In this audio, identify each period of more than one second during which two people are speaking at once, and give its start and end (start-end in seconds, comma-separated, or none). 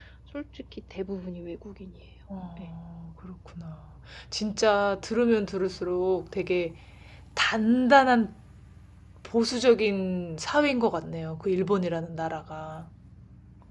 none